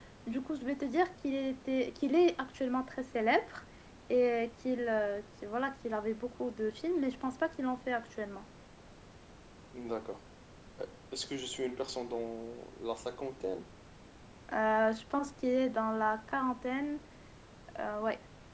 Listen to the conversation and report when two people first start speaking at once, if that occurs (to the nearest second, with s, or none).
none